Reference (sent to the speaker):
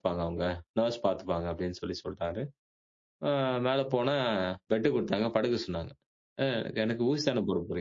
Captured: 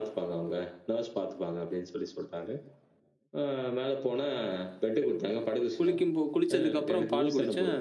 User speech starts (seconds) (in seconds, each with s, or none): 5.8 s